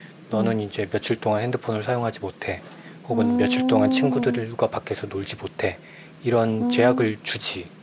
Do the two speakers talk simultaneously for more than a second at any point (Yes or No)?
Yes